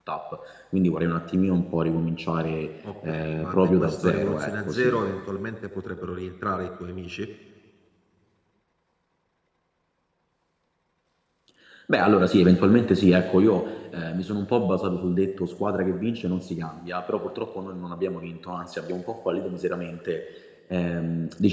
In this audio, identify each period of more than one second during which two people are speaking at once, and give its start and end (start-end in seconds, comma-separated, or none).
3.1-5.0